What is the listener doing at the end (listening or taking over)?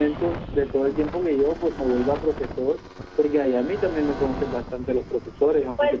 taking over